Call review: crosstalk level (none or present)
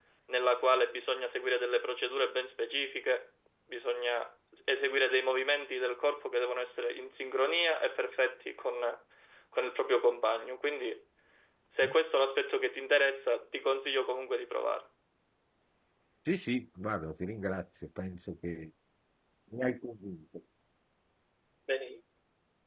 none